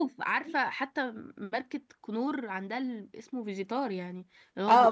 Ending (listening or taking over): taking over